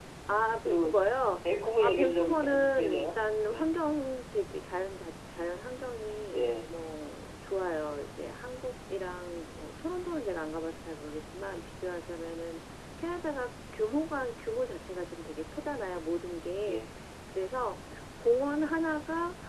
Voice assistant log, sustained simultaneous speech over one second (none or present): present